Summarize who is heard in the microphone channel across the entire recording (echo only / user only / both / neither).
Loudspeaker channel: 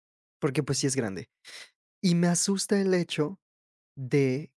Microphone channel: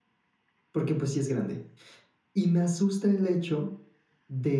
echo only